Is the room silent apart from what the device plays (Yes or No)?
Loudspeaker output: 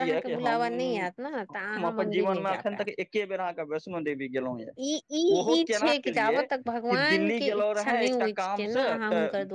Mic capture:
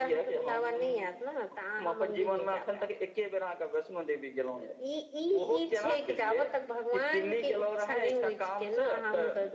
Yes